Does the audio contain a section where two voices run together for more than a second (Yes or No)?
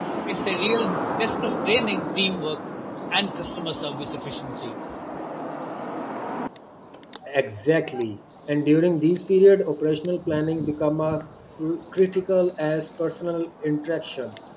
No